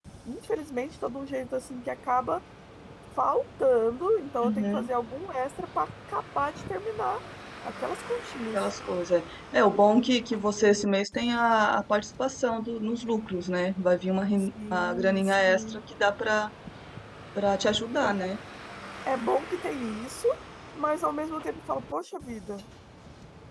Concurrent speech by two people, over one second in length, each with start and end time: 14.4-15.8

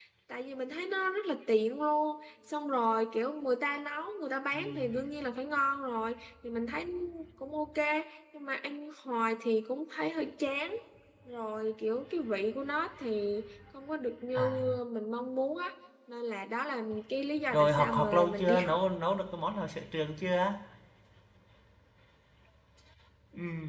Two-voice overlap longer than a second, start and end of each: 17.5-18.8

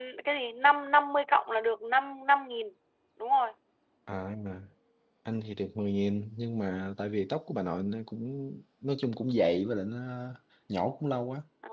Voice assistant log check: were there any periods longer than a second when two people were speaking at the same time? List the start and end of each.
none

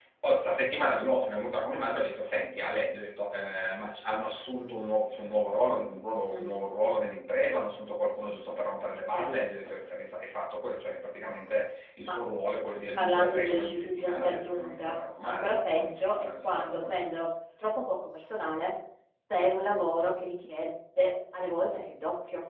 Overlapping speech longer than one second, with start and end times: 13.0-17.2

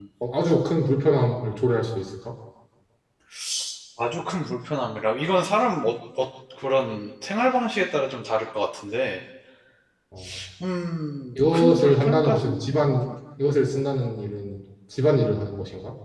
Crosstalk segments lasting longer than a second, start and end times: 11.5-12.9

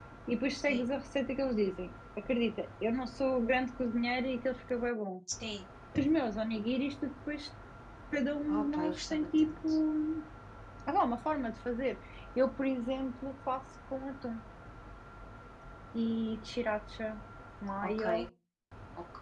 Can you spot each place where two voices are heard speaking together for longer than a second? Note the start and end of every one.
8.5-9.8

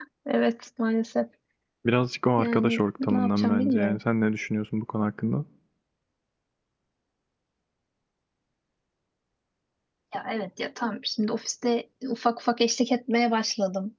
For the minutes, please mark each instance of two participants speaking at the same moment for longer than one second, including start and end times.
2.4-4.0

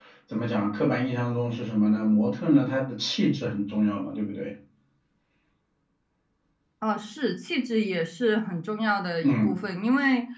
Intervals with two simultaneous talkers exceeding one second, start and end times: none

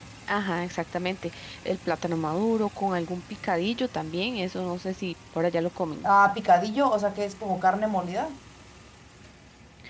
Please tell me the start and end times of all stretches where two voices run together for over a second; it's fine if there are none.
none

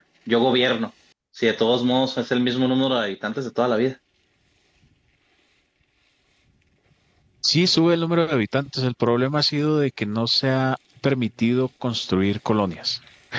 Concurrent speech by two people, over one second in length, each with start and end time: none

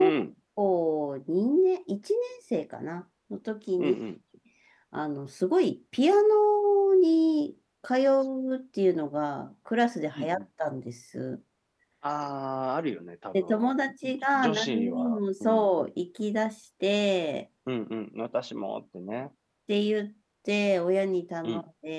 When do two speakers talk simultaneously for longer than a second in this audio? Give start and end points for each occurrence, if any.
14.0-15.7

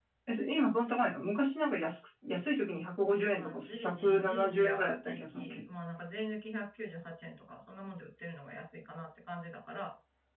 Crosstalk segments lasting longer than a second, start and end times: 3.3-5.6

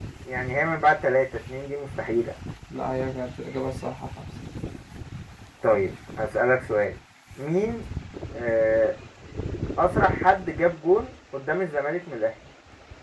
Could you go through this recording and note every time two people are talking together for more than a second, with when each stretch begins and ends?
none

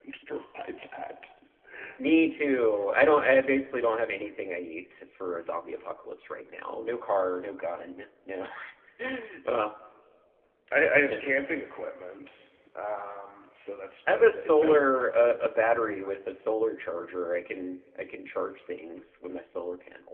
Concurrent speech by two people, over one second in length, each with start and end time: 14.1-15.3

